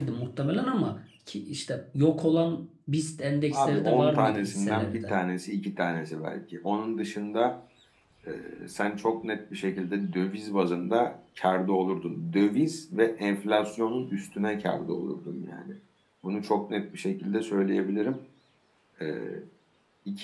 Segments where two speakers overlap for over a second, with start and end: 3.5-5.1

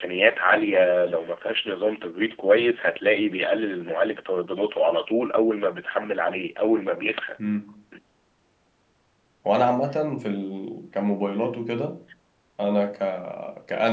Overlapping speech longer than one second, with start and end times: none

